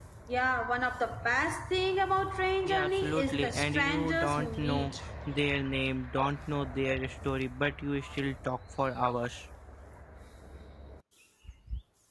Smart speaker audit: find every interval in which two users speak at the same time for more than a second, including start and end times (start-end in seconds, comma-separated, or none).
2.6-4.9